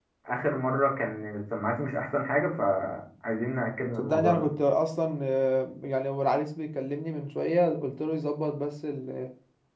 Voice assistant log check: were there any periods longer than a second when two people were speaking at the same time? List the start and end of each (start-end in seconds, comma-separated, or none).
none